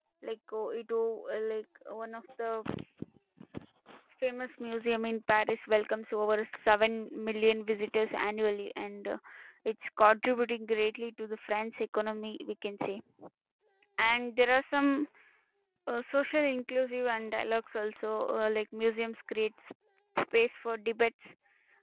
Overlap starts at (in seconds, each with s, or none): none